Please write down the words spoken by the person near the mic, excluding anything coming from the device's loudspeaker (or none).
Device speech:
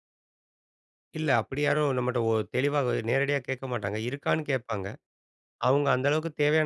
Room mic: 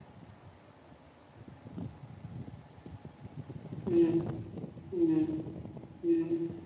ம், ம், ம்.